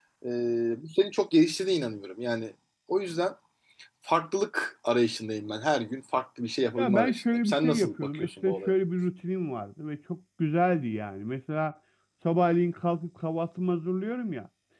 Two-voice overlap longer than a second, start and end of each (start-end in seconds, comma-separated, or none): 6.8-8.7